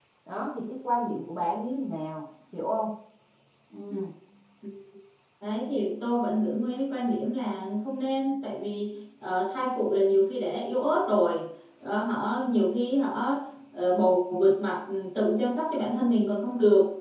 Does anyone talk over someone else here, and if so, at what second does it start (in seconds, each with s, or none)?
none